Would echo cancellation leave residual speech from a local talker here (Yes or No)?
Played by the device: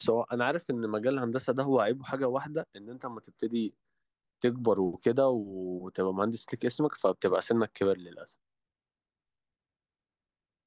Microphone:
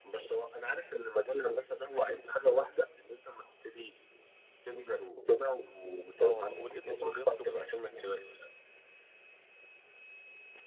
Yes